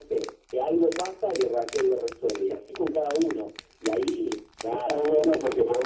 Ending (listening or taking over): taking over